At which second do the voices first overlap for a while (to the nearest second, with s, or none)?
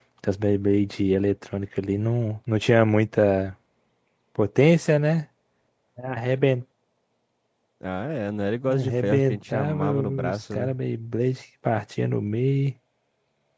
9 s